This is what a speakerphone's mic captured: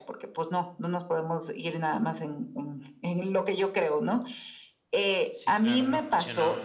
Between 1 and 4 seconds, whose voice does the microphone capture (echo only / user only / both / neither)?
echo only